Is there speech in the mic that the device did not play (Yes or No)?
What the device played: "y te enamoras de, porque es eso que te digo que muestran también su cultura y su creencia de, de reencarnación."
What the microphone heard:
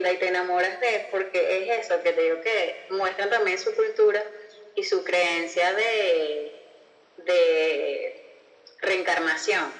No